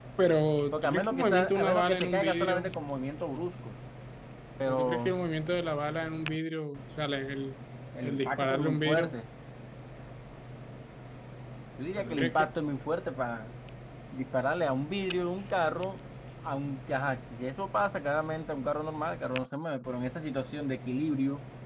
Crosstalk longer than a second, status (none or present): present